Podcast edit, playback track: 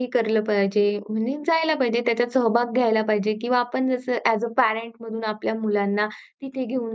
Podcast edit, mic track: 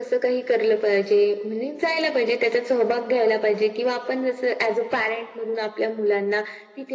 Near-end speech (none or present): none